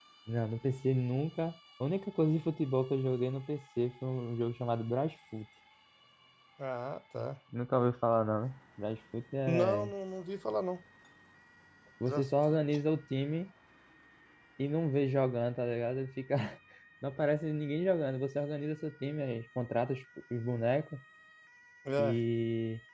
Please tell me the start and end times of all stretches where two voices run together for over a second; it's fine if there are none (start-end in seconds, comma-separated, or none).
none